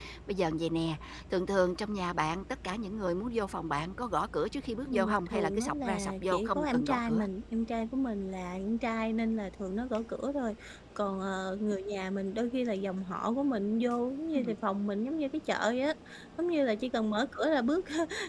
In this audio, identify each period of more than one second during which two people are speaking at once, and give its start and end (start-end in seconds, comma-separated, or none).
4.9-7.2